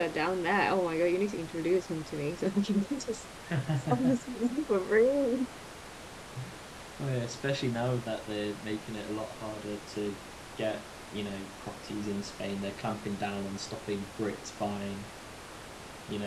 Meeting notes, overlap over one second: none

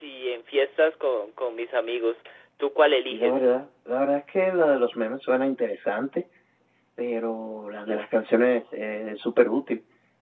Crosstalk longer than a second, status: none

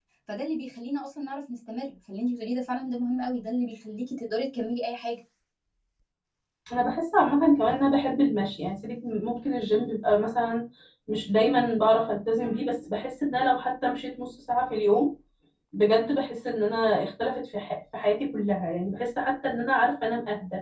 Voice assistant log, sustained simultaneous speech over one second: none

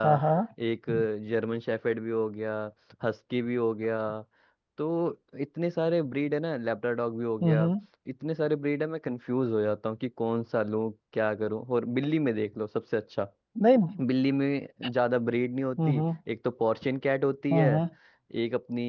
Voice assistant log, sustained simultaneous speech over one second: none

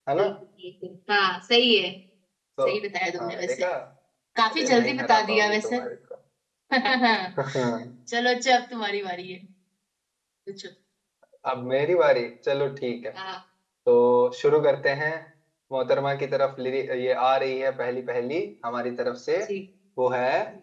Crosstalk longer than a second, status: present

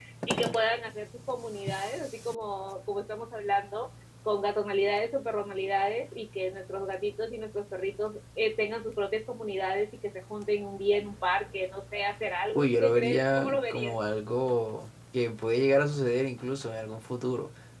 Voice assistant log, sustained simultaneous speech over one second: present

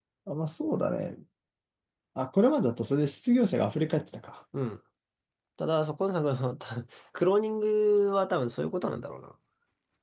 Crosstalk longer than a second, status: none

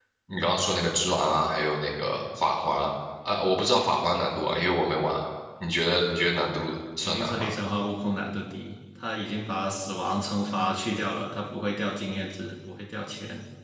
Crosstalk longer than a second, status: none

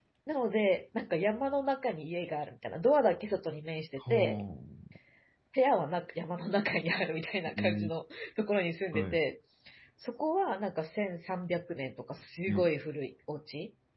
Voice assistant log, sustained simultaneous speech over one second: none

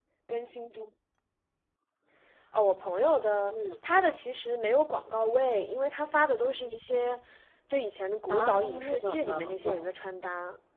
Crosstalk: present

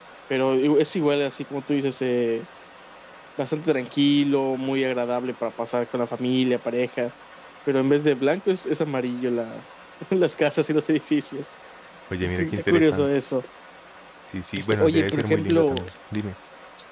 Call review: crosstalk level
present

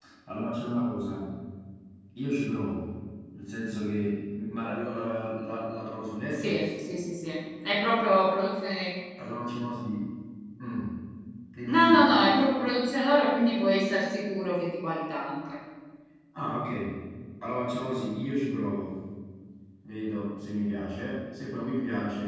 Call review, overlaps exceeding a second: none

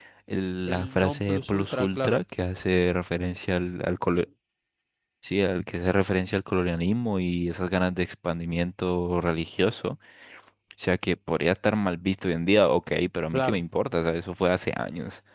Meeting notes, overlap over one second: present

